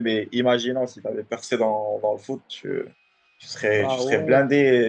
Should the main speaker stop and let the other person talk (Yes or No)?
No